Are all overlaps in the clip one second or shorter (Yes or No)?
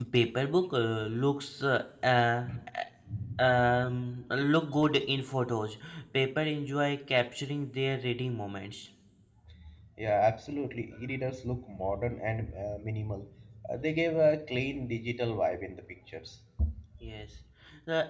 Yes